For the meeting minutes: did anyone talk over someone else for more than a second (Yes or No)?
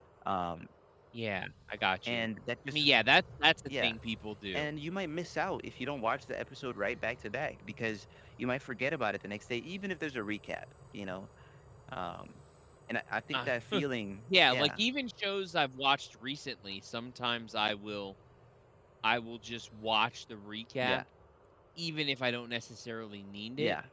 No